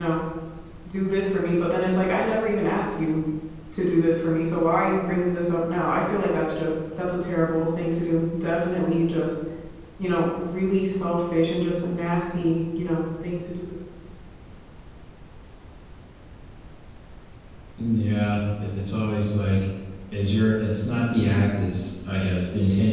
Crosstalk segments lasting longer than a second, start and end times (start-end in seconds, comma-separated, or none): none